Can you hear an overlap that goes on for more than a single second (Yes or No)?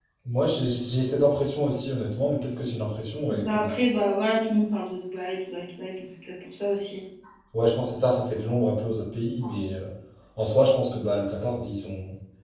No